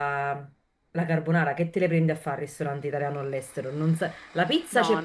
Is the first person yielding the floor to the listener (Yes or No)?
No